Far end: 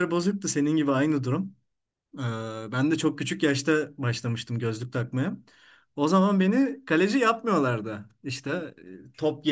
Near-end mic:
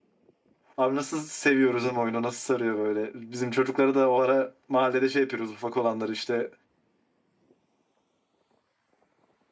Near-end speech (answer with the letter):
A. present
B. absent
A